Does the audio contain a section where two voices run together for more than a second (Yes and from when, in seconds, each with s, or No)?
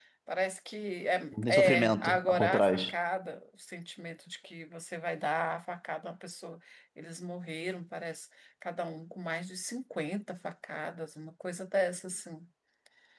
Yes, from 1.3 s